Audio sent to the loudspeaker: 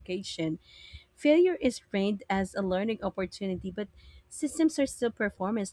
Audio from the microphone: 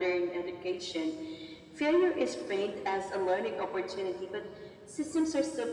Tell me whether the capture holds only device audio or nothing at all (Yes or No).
Yes